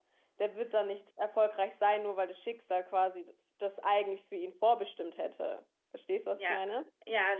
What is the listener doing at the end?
taking over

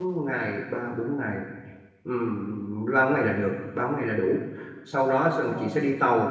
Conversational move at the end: listening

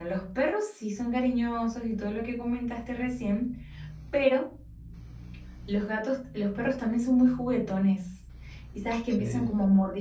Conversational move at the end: listening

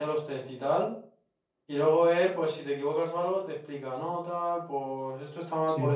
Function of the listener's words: listening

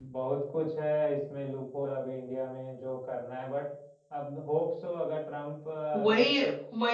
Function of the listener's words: taking over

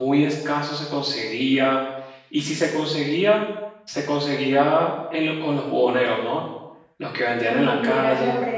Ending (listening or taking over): taking over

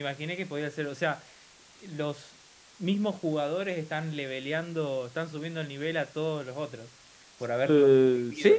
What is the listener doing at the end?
taking over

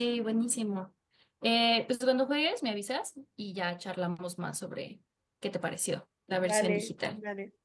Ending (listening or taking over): taking over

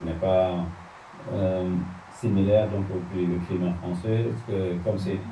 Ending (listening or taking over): listening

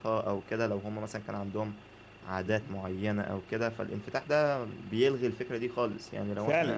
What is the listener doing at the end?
taking over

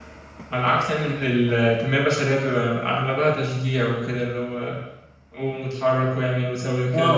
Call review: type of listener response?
taking over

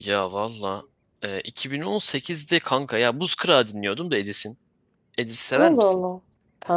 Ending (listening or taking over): taking over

